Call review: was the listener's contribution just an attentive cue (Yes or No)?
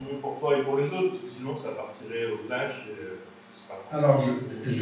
No